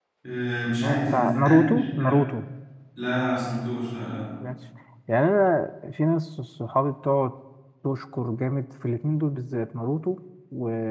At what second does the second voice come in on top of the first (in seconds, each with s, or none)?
0.8 s